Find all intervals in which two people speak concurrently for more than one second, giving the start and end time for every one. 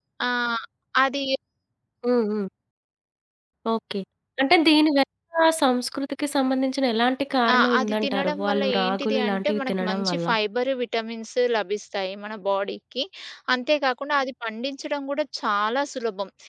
7.5-10.2

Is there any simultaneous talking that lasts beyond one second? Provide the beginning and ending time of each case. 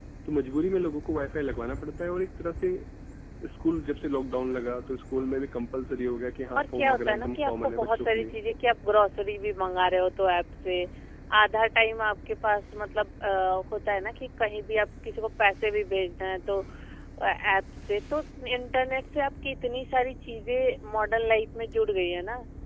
6.6-8.4

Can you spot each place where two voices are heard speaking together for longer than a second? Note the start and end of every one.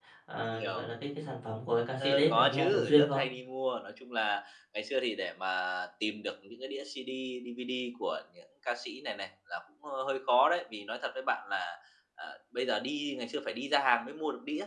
2.0-3.2

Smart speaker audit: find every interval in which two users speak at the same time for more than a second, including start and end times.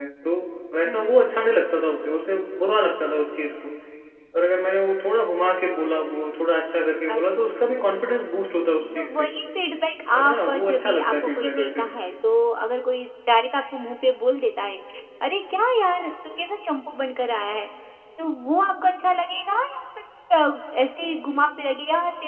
10.1-11.9

